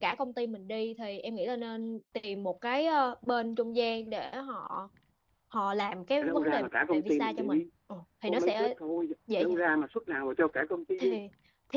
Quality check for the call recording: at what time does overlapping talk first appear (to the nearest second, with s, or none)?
6 s